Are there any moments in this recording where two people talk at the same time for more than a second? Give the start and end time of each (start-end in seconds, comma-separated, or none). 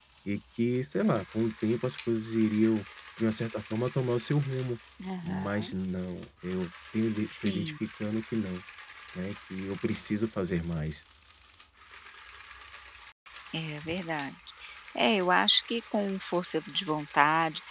none